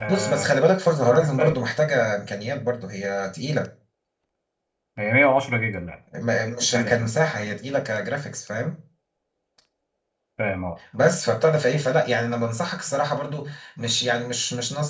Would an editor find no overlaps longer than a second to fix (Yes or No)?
Yes